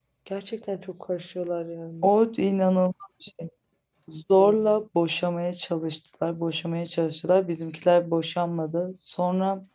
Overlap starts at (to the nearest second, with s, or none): none